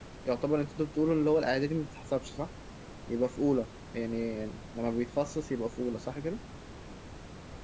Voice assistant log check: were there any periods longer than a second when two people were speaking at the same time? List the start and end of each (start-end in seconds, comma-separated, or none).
none